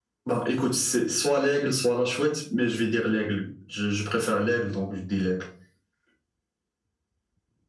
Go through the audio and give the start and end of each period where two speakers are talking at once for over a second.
none

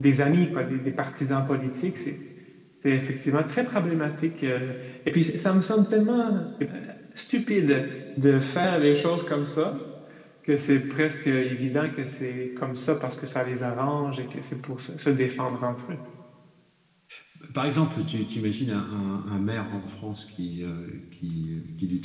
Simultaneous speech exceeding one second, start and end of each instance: none

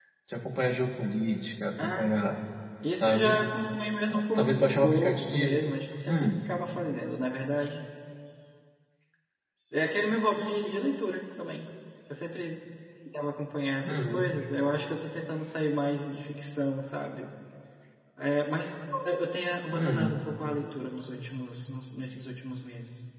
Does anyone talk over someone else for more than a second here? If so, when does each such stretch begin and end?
4.1-5.6

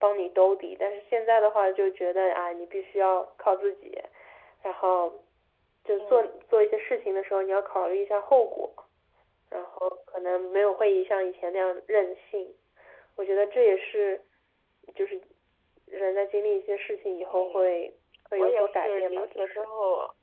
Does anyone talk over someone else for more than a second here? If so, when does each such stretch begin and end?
18.4-19.6

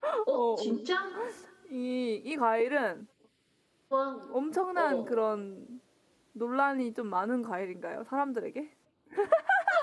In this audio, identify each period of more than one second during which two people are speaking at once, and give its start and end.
none

